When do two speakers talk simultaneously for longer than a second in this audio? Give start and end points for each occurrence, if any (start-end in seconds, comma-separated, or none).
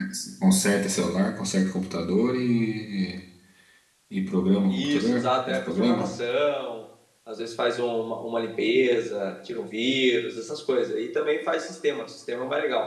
4.7-6.2